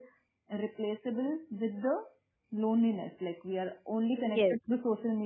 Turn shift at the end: No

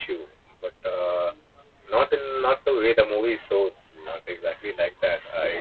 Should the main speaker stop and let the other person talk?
No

